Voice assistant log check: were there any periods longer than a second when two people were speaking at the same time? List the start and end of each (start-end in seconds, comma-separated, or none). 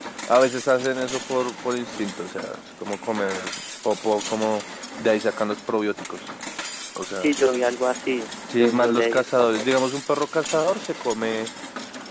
8.5-9.8